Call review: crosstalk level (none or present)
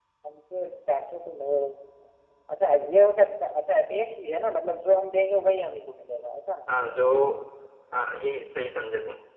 none